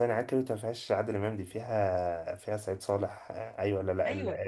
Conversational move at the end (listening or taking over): taking over